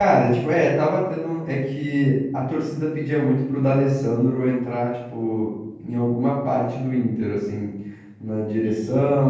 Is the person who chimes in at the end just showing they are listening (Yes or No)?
Yes